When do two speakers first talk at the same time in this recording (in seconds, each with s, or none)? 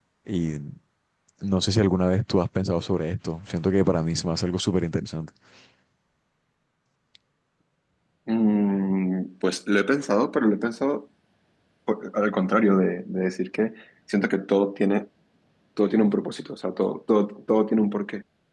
none